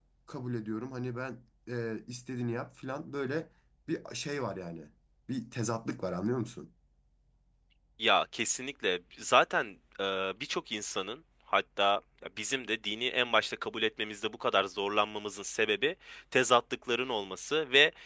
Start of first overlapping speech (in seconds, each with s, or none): none